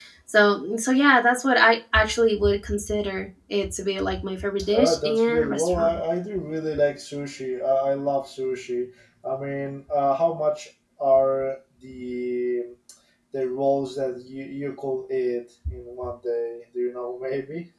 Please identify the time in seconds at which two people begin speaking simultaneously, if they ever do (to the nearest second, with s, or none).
5 s